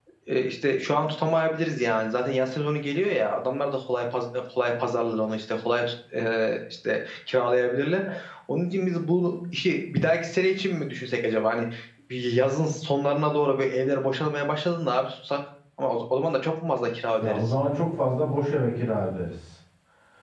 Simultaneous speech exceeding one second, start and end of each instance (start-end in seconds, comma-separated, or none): none